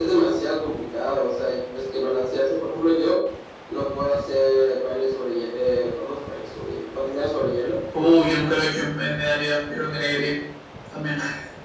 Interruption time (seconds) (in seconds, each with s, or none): none